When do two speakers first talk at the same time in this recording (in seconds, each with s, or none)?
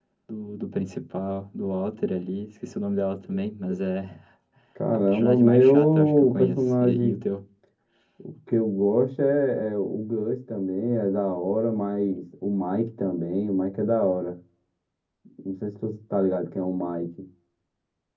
4.9 s